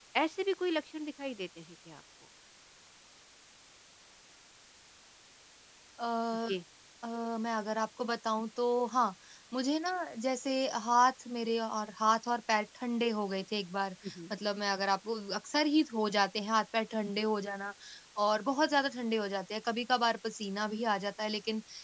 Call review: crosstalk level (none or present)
none